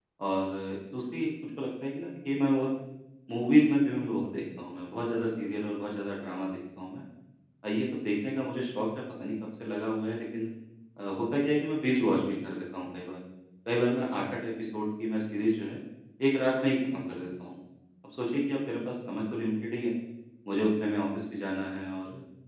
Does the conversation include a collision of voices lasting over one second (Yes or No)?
No